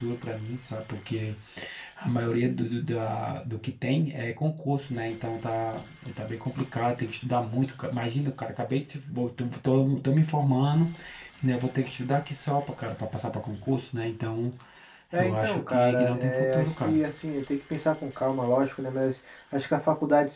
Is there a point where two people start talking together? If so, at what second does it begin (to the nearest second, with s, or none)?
15 s